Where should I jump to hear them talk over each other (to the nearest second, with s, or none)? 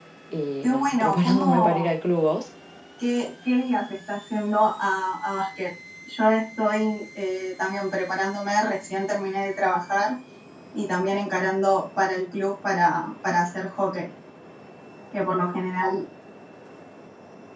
1 s